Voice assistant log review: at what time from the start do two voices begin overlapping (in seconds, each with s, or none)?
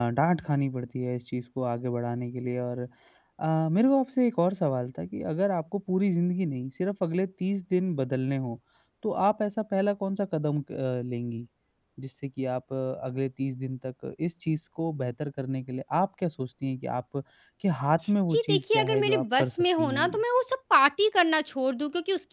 18.3 s